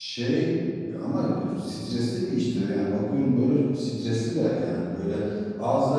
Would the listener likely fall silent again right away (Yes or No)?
Yes